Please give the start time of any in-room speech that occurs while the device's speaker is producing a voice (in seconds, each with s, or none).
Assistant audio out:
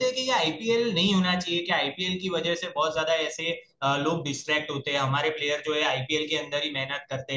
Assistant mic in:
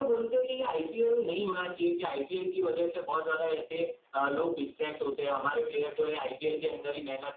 none